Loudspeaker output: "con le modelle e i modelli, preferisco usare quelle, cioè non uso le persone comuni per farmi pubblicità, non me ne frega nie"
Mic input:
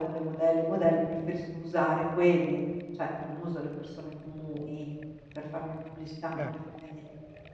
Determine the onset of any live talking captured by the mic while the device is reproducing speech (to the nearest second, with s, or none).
6 s